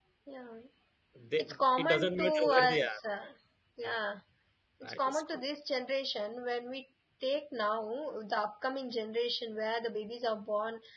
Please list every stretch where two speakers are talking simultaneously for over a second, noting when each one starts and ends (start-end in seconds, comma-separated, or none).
1.4-3.0